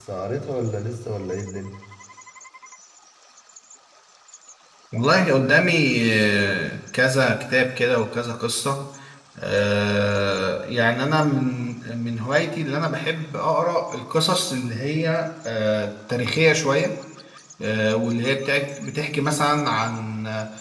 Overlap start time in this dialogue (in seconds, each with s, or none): none